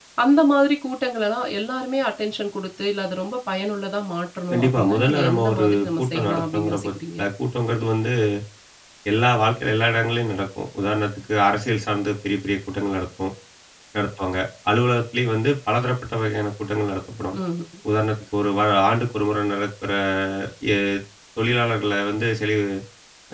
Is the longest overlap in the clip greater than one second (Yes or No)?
Yes